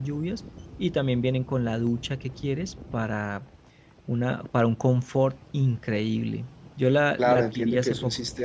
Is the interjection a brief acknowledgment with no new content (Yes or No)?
No